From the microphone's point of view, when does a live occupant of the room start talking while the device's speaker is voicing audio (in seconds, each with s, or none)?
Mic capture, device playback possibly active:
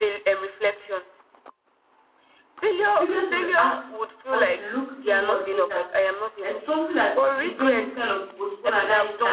3.0 s